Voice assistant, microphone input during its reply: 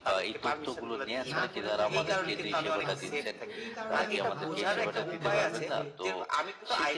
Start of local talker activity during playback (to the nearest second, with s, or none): 1 s